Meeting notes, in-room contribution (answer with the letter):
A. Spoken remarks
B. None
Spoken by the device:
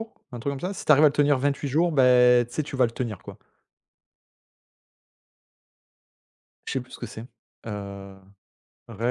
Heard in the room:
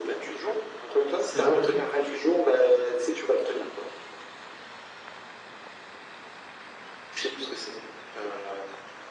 A